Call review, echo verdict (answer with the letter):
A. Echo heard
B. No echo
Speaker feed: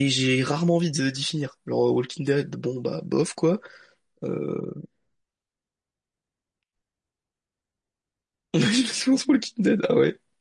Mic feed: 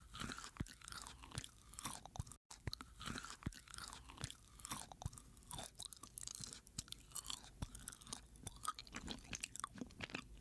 B